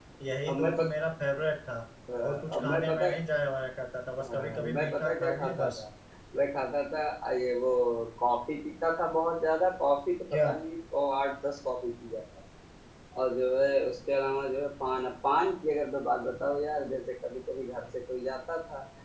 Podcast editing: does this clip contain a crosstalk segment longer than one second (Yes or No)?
Yes